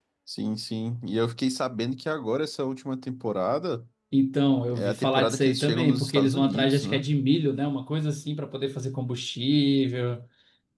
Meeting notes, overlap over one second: present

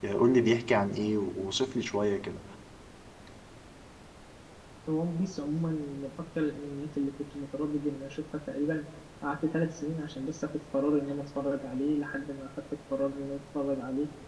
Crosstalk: none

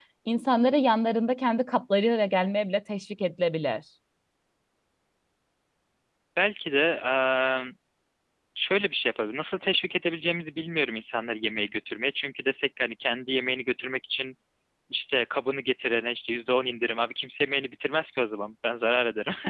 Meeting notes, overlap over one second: none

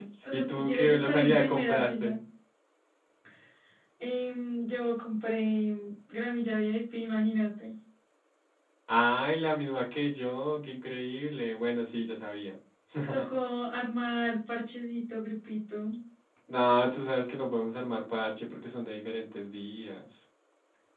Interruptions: present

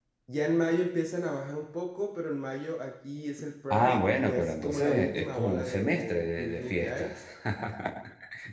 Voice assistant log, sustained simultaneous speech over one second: present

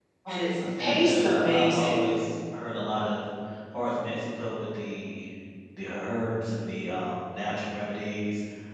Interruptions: present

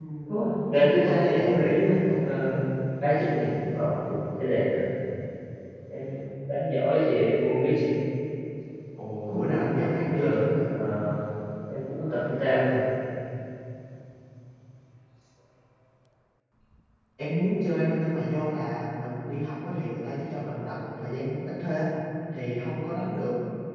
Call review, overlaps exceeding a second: present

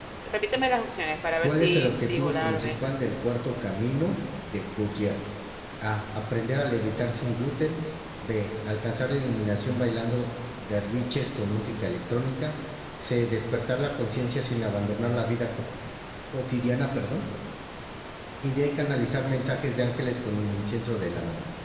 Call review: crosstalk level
present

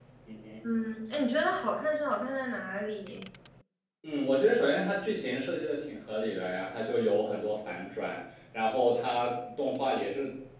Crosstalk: none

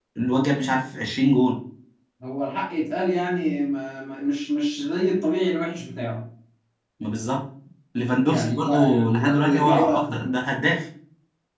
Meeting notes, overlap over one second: present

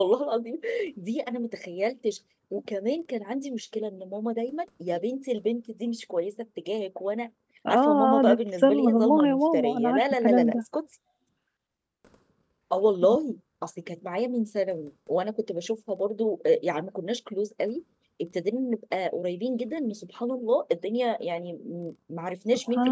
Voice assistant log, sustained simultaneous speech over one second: present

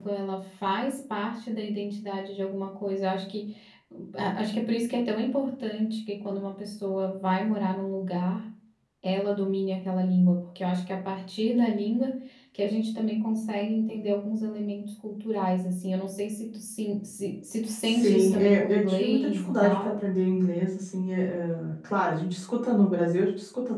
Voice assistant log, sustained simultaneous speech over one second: present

